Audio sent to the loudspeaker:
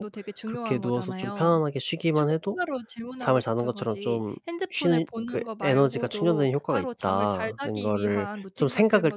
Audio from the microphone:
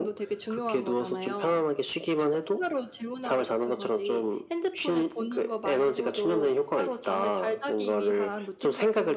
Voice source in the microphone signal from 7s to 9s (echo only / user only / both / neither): echo only